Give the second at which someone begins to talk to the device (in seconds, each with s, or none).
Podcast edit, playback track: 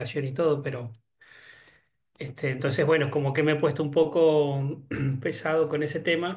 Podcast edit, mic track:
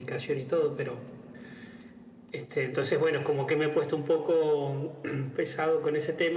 none